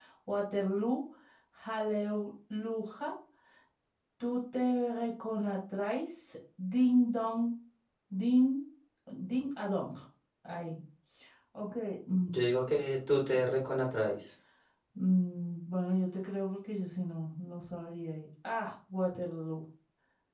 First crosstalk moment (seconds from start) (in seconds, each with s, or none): none